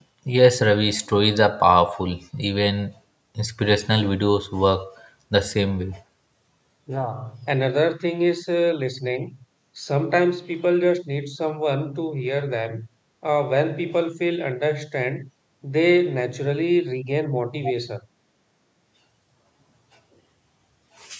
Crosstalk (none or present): none